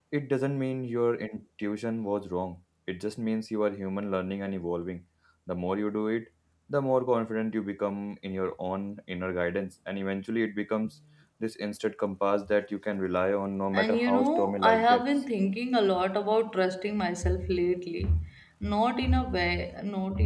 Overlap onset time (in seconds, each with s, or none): 13.7 s